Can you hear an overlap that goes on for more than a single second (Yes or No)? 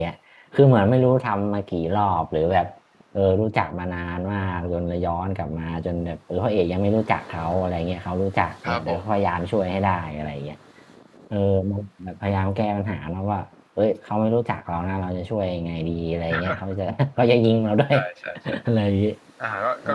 No